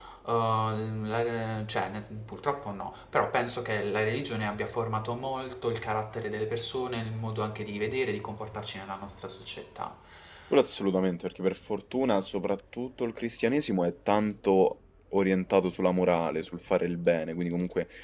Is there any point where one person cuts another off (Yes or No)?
No